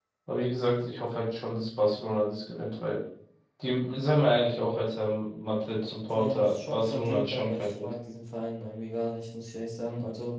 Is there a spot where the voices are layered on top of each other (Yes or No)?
Yes